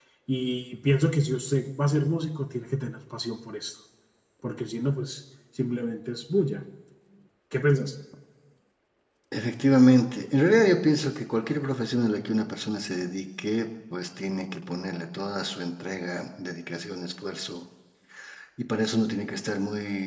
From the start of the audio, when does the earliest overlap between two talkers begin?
none

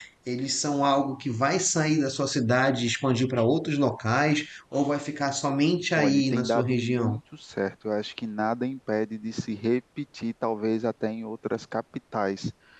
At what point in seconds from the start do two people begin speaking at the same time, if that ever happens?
6.0 s

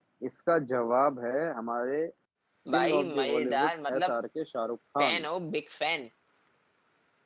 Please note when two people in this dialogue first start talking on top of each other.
2.7 s

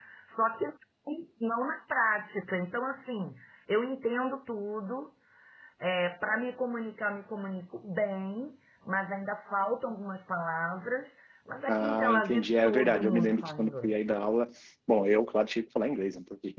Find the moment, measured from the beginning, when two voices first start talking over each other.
11.7 s

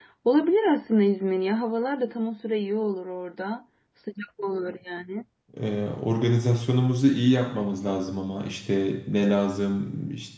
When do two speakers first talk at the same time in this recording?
none

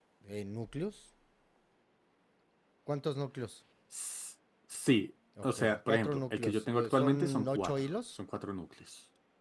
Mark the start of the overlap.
5.4 s

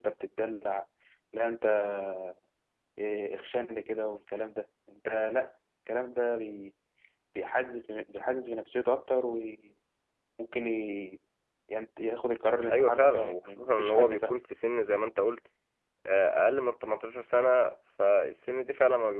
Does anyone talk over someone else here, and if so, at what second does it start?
12.7 s

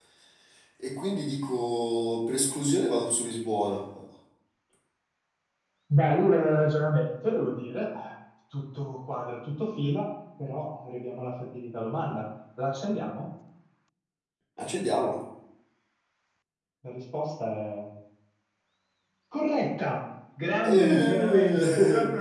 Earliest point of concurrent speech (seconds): 20.6 s

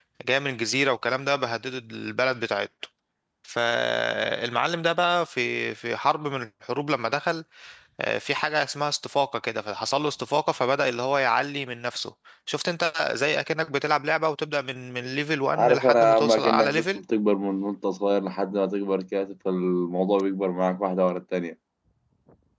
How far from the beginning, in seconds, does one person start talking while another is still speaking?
15.5 s

